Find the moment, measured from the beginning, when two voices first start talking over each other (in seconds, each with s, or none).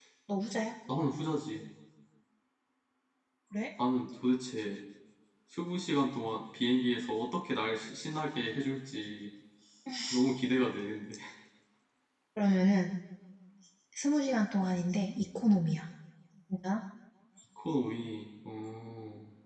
none